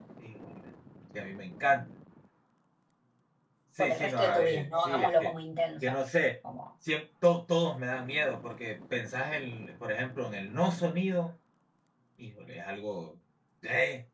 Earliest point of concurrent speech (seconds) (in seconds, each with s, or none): 3.8 s